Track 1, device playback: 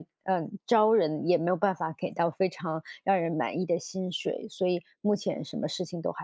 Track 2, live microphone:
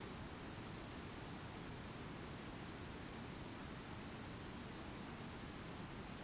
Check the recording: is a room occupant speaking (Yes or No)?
No